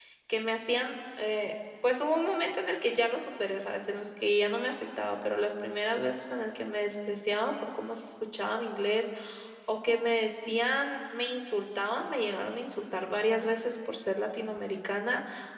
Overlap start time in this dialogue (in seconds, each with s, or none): none